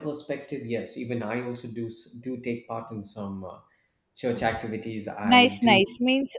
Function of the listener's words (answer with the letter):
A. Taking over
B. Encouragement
A